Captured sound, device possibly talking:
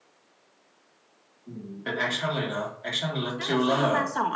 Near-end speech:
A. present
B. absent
A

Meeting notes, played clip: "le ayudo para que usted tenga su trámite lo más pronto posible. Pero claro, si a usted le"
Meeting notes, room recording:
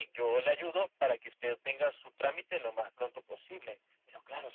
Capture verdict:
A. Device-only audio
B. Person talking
A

